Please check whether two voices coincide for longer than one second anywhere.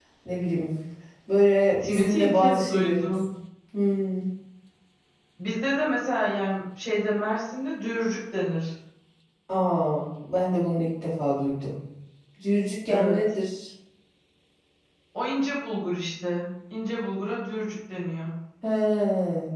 Yes, from 1.8 s

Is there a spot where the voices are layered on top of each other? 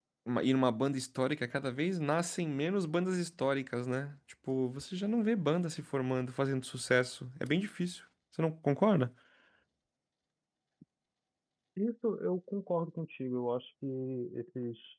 No

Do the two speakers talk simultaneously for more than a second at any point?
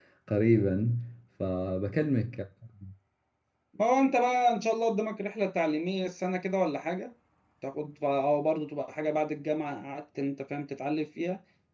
No

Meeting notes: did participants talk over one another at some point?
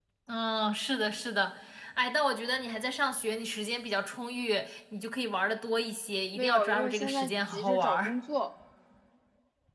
Yes, from 6.4 s

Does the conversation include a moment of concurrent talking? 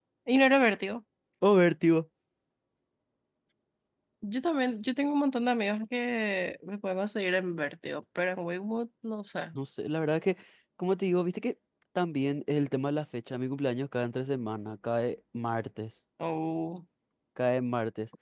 No

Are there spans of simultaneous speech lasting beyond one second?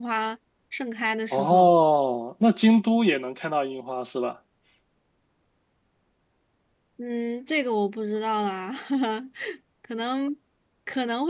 No

